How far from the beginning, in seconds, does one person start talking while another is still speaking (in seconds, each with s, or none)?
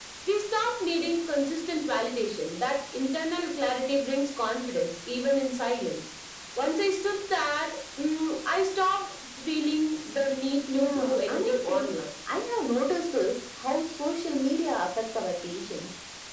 10.7 s